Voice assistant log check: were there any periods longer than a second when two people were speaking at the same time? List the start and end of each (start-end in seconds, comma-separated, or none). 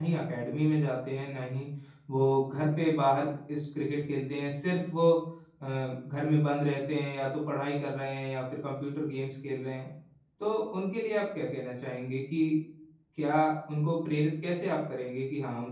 none